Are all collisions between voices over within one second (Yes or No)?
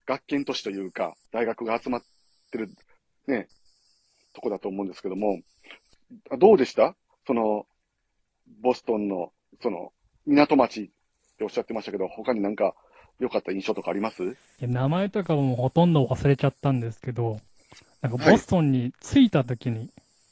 Yes